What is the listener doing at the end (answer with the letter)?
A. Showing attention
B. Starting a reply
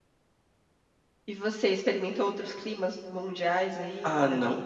B